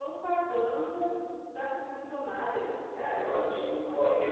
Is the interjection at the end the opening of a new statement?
Yes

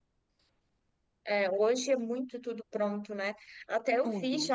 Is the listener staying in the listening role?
Yes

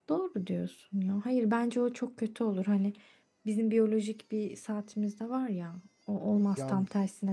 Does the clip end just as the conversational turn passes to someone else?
No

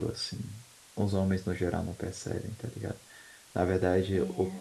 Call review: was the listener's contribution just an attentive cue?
Yes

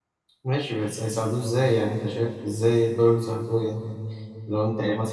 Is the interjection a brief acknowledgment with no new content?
Yes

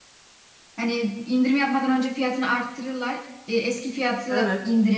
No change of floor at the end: Yes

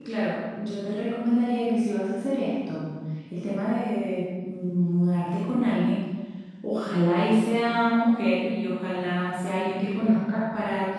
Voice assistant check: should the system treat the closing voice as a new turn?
No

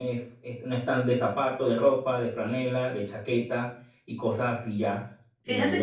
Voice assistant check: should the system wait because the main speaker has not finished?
No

